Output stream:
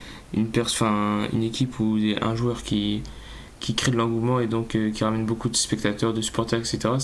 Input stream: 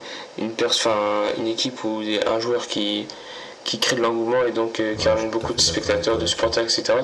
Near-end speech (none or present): present